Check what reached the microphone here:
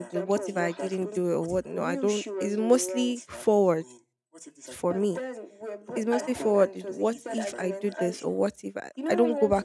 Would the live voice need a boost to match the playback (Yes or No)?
No